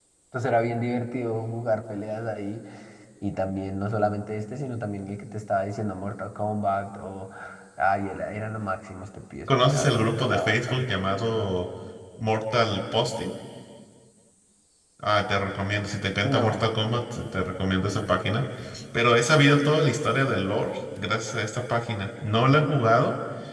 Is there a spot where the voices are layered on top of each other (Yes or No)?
Yes